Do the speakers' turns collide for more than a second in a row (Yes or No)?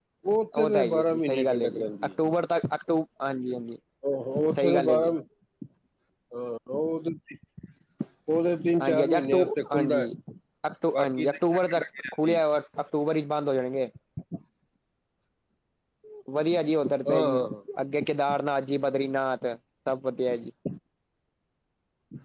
Yes